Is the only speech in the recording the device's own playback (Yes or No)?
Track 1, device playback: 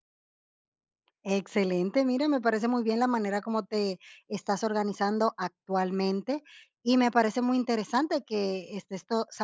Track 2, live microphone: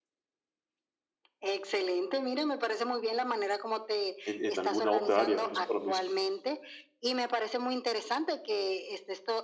No